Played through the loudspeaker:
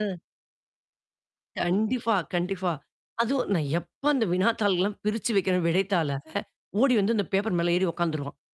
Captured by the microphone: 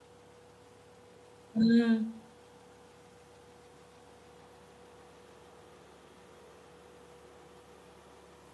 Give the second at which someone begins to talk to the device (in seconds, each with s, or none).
1.5 s